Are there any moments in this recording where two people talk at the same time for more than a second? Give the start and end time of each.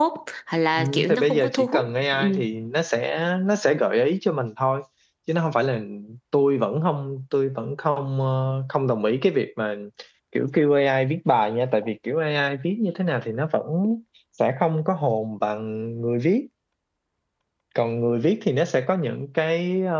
0.7-2.2

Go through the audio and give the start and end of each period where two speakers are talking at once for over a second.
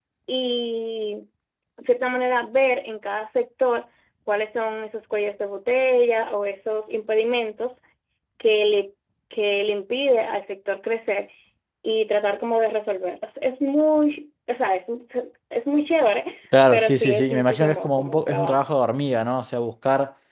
16.7-18.6

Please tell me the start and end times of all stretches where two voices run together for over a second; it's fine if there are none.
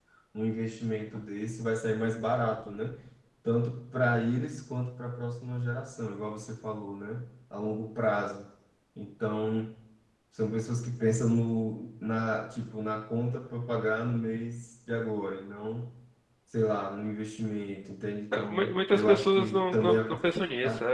18.3-20.1

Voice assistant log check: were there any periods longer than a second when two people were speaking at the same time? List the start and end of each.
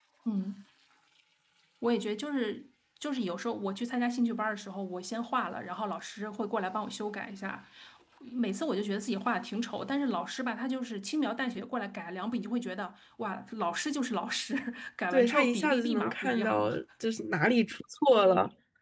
15.1-16.8

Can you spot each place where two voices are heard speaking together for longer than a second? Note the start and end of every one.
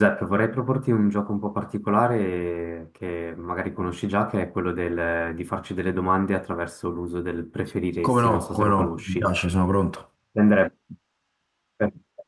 8.1-9.3

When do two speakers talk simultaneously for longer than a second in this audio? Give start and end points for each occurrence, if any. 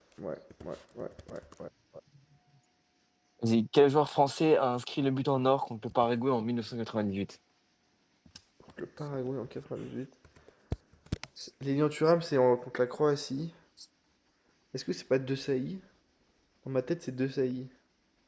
none

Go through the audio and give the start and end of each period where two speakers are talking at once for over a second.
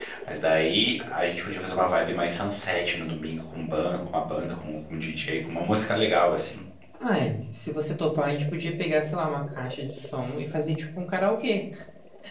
none

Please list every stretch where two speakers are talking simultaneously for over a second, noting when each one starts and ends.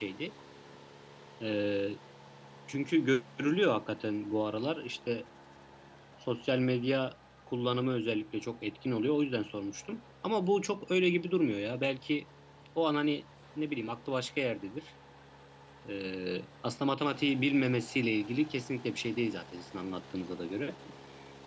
none

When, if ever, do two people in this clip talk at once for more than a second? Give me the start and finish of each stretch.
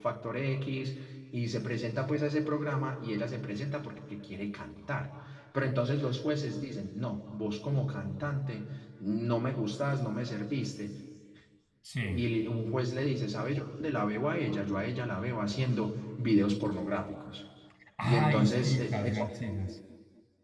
18.0-19.3

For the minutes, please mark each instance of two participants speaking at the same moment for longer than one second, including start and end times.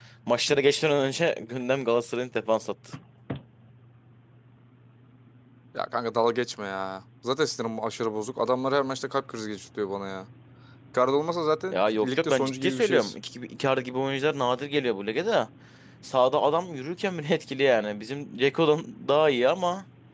11.7-13.1

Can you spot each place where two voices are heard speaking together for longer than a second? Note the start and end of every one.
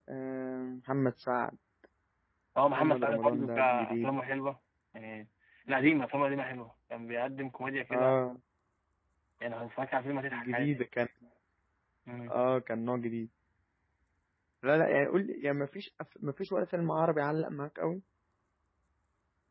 2.8-4.1

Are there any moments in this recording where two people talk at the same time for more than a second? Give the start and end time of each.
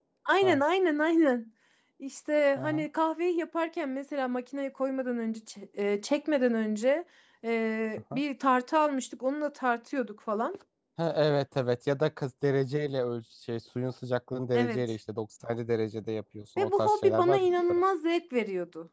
16.6-17.8

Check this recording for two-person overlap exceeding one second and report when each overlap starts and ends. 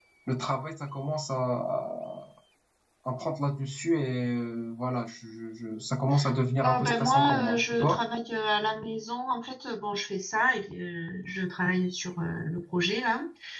6.6-8.0

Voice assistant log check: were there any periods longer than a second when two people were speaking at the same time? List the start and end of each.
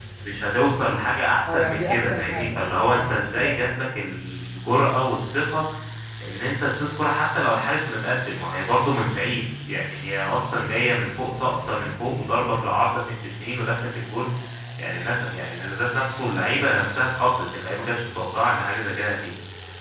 1.5-3.9

